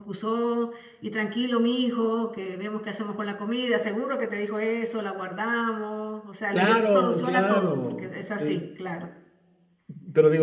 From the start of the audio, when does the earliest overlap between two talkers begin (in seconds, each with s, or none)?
6.5 s